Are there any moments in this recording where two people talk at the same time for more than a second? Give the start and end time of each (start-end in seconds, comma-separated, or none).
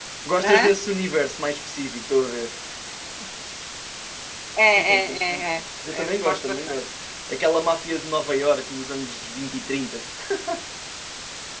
4.8-6.8